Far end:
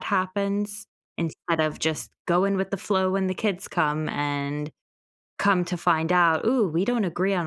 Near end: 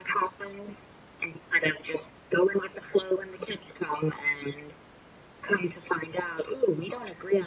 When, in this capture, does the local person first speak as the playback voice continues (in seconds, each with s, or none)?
none